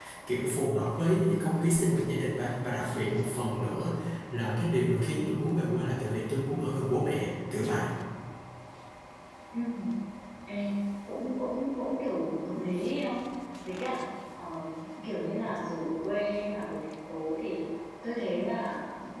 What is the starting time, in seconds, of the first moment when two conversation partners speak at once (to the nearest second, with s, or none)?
none